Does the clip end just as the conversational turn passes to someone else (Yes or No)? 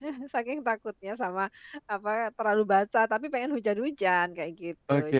Yes